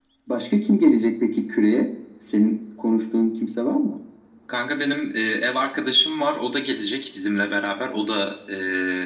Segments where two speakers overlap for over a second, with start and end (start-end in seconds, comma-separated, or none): none